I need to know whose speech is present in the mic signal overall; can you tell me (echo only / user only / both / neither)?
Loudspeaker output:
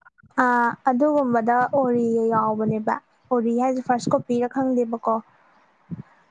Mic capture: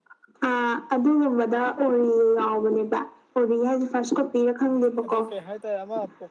both